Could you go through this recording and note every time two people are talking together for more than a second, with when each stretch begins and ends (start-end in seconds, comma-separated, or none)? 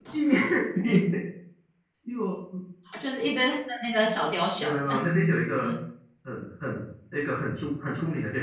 none